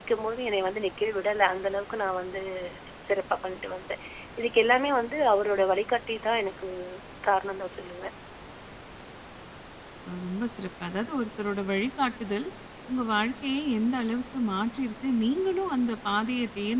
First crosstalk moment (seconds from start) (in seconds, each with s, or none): none